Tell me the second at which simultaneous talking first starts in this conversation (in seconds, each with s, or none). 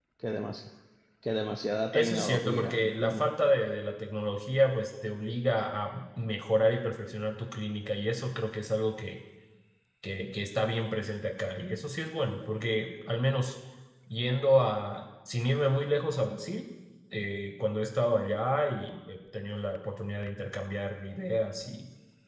1.9 s